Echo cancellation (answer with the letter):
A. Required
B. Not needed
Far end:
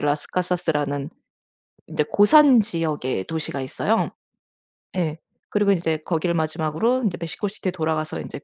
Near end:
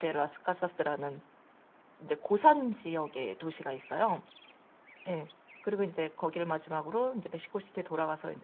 A